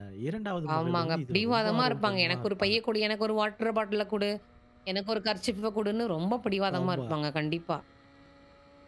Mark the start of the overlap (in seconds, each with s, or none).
0.7 s